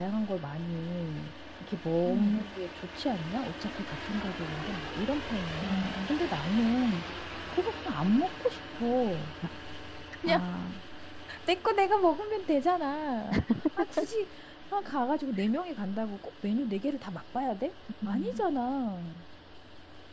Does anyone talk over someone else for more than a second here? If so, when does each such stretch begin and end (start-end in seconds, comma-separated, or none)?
none